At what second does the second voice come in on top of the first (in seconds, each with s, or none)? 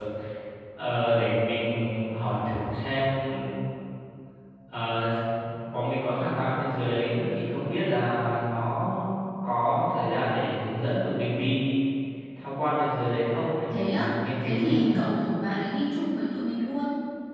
13.7 s